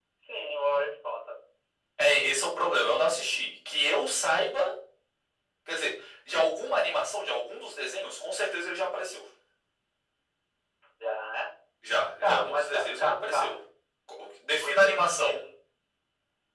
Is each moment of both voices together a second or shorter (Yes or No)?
No